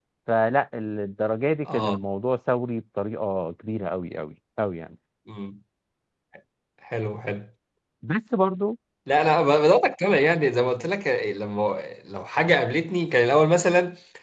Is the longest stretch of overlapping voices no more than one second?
Yes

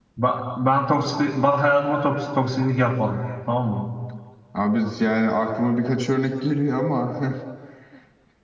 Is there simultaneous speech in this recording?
No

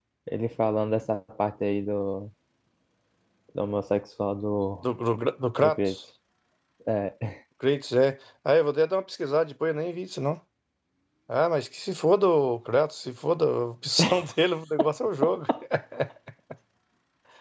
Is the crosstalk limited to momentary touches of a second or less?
Yes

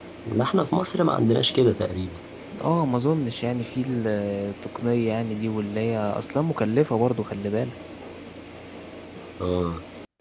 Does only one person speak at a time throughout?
Yes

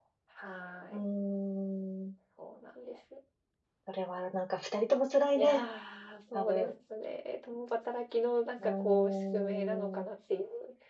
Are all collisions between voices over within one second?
No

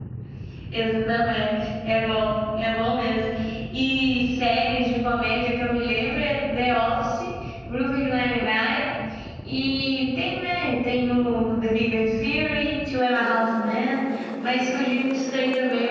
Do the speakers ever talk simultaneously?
No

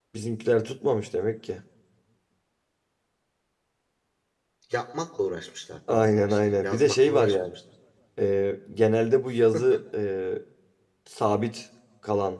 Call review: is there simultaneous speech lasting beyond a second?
Yes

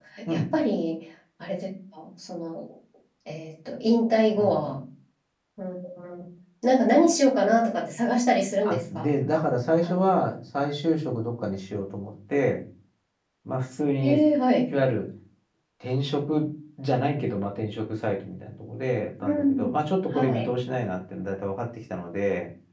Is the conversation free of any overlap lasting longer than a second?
Yes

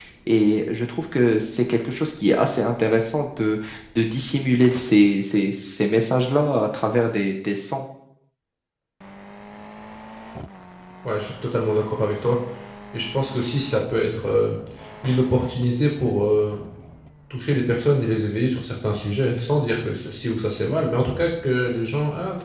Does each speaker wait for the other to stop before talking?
Yes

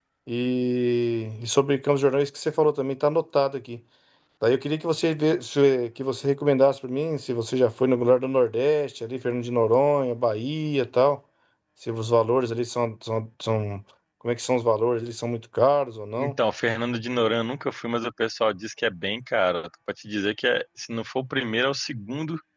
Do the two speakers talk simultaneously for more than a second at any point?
No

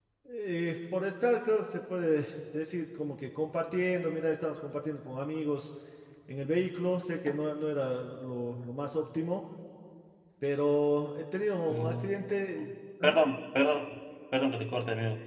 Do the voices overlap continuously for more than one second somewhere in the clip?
No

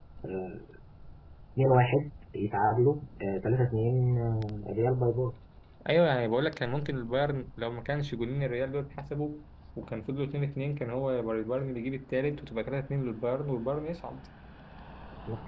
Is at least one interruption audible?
No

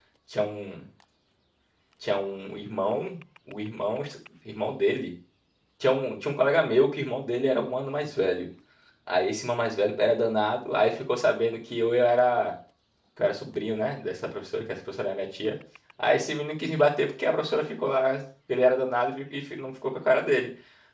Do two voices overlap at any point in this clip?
No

